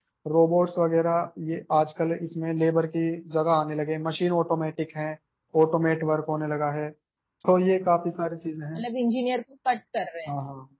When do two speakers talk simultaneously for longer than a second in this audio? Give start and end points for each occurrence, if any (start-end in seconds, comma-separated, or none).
none